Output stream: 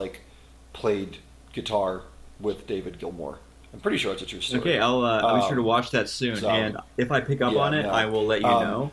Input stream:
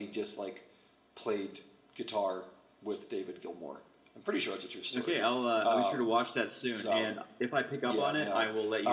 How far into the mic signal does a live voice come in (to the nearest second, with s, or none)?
none